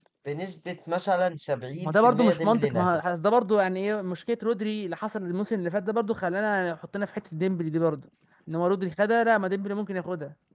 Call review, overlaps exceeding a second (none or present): present